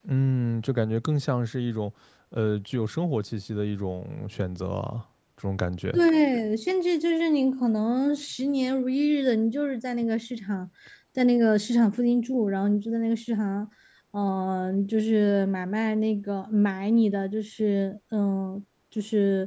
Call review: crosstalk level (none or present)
none